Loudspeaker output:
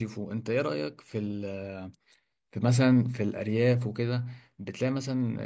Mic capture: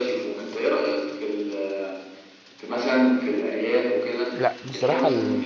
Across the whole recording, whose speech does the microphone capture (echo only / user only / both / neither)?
both